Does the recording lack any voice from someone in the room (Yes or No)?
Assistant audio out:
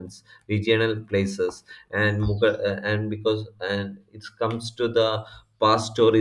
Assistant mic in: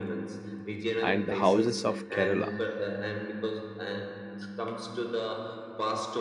No